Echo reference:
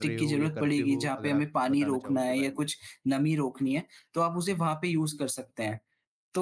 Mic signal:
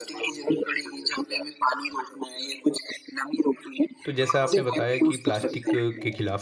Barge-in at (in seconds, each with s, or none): 4.0 s